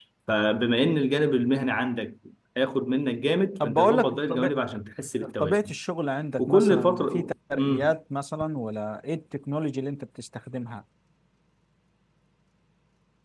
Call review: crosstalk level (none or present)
present